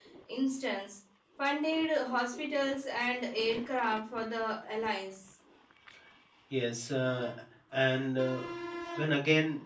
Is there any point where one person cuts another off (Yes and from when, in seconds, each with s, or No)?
No